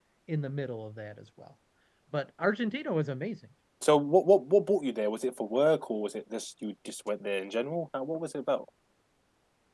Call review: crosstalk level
none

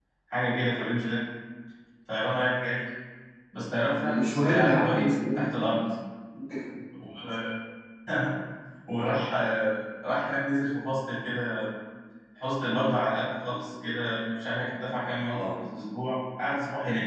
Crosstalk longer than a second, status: present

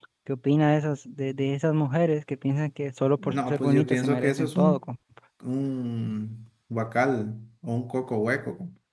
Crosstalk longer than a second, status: present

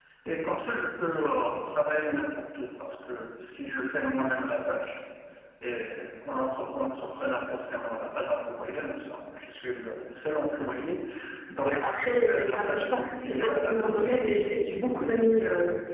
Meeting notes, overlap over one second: present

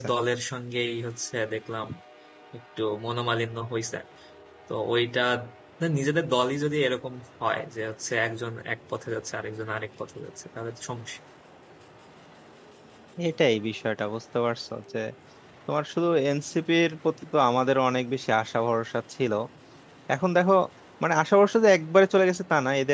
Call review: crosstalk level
none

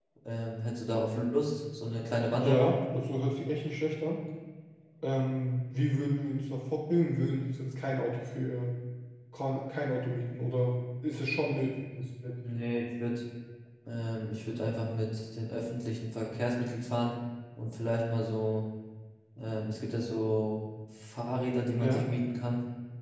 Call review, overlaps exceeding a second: none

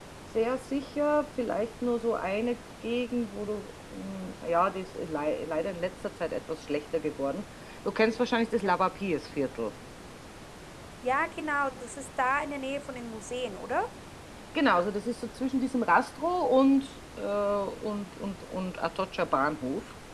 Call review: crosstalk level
none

